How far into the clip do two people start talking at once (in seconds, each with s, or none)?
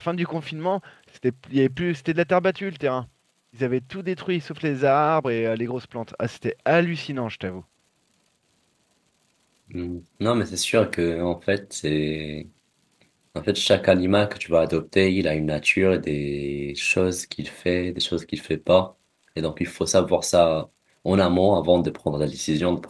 none